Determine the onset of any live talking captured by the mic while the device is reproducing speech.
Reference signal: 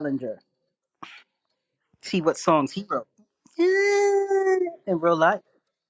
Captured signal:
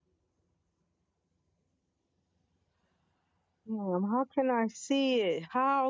3.7 s

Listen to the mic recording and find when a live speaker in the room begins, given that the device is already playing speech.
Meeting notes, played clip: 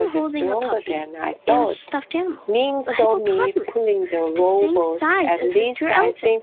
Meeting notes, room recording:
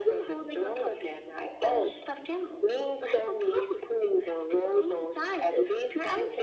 none

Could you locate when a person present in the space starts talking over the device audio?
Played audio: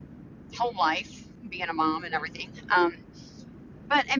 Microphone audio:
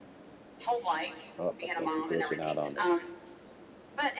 1.4 s

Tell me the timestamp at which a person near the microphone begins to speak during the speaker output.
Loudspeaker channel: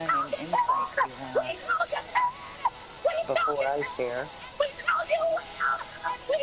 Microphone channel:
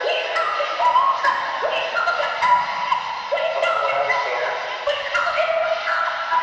none

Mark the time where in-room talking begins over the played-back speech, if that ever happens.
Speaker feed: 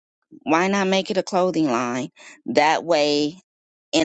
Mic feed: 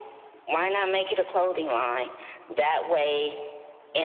none

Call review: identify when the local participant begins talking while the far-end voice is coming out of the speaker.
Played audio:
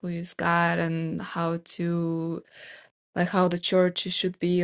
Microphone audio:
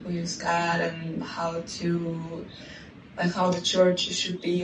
none

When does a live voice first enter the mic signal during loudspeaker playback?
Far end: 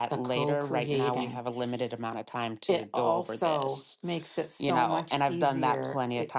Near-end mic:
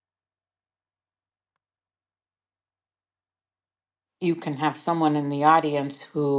4.2 s

